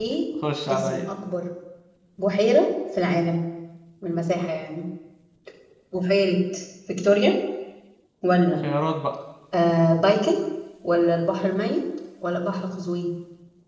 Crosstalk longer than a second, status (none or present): none